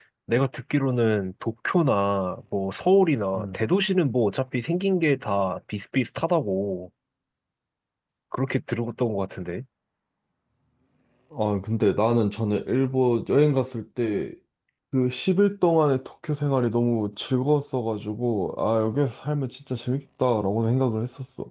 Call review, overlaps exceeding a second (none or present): none